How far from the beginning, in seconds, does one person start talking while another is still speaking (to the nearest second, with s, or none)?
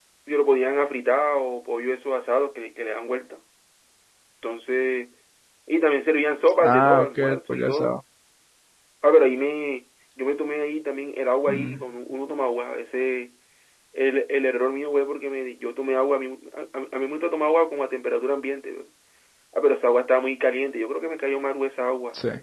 7 s